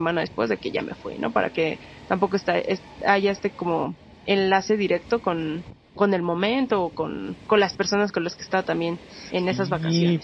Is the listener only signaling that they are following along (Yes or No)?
No